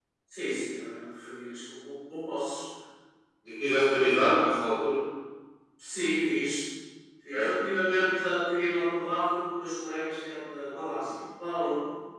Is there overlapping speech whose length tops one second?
No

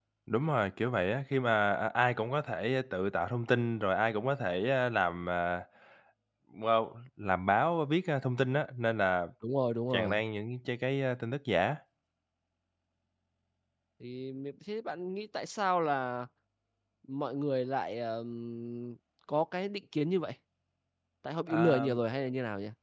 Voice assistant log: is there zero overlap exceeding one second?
Yes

